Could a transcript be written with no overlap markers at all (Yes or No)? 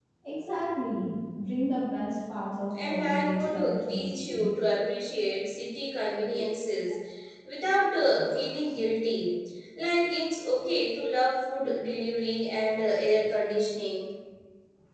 No